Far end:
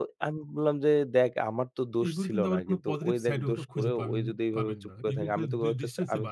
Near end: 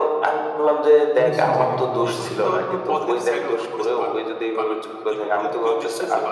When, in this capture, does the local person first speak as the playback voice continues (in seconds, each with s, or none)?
1.2 s